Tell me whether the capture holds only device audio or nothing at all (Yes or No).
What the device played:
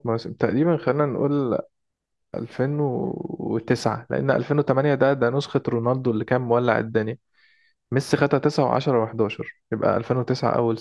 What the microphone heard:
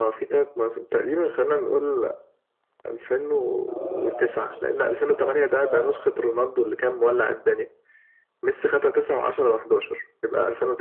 No